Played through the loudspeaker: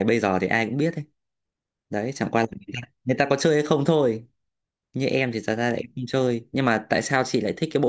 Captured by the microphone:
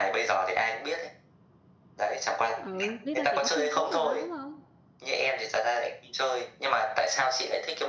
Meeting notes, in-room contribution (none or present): present